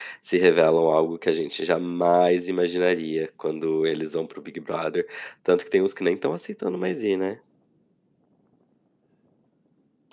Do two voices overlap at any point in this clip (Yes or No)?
No